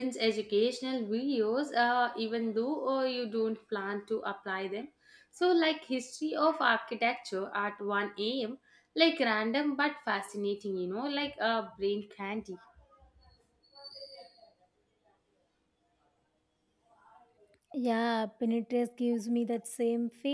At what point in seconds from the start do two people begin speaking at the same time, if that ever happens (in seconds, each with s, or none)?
none